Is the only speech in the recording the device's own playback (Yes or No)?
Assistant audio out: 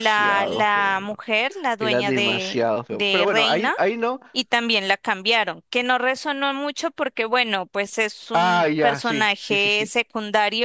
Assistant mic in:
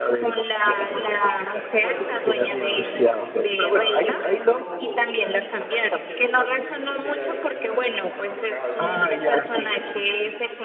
No